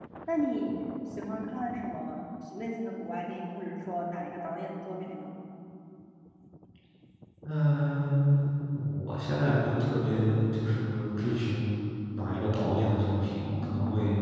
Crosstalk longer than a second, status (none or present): none